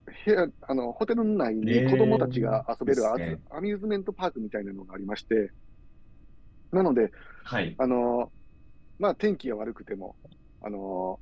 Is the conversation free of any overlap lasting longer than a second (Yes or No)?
No